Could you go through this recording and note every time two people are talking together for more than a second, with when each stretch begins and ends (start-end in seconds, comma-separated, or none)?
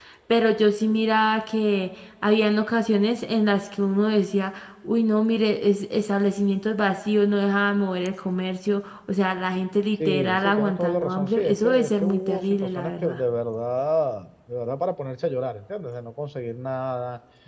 10.1-13.2